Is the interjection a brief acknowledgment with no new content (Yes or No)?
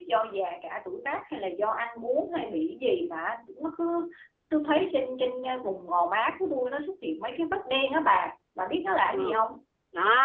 No